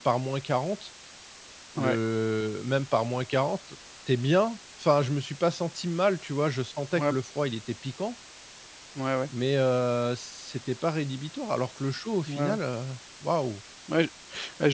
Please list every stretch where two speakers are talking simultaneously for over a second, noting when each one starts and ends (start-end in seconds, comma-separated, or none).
none